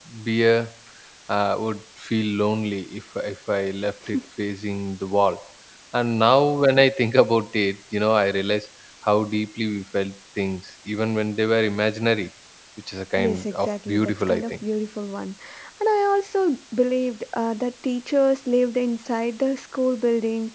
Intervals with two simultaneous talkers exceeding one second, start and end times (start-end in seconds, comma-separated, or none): 13.2-14.5